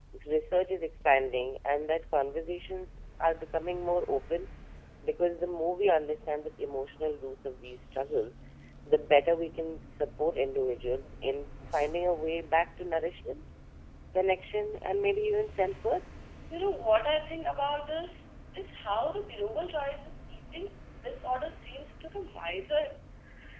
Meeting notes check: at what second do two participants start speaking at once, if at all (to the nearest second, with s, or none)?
none